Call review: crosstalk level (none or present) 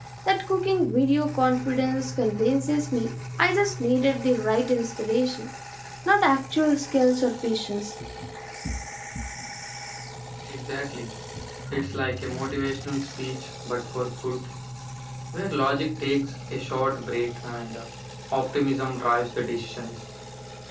none